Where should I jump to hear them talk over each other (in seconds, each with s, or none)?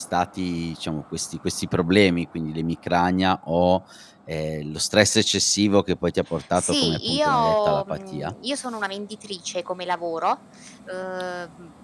6.6 s